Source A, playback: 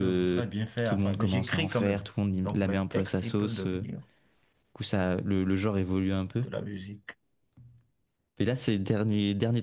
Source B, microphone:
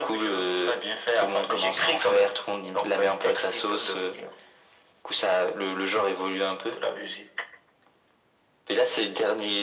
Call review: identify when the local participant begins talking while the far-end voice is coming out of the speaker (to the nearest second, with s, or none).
none